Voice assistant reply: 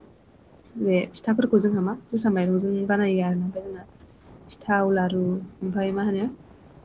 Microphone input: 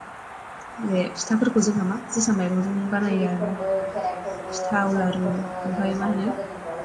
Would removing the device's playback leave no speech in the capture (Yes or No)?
No